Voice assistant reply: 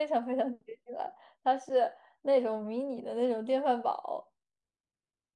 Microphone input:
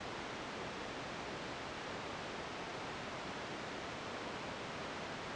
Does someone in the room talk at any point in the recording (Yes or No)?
No